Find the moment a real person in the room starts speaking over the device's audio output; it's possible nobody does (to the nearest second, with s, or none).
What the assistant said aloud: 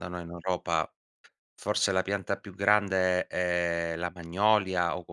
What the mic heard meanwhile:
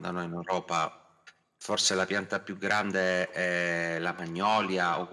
none